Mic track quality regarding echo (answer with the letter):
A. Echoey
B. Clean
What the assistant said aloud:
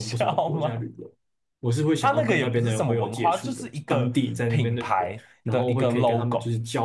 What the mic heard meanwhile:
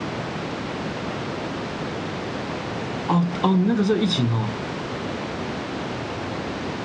B